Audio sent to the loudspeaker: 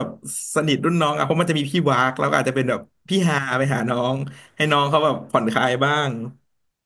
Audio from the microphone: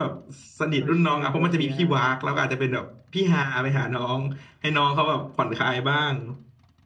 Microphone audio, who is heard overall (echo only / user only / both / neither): both